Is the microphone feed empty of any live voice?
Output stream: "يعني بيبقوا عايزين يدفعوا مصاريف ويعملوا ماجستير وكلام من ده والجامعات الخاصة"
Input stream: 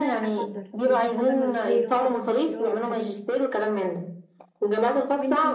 No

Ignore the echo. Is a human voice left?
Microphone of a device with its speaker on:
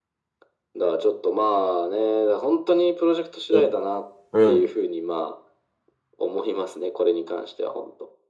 Yes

